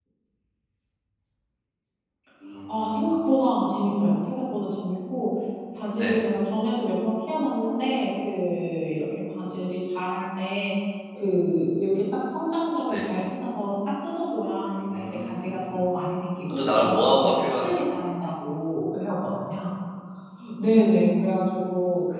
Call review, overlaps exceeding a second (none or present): present